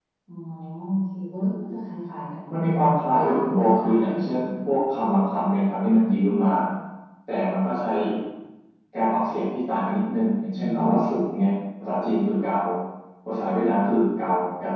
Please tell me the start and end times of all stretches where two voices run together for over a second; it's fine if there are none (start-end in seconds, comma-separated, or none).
3.1-4.5